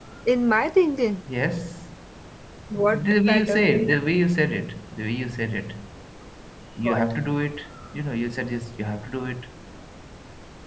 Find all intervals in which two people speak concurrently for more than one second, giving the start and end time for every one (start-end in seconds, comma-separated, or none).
2.8-4.0